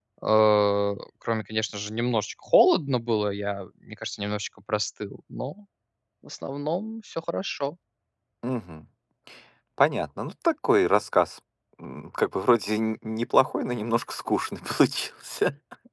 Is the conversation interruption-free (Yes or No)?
Yes